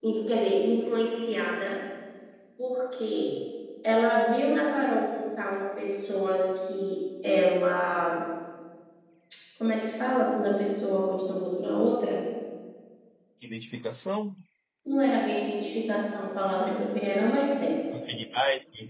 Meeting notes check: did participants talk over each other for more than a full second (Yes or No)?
No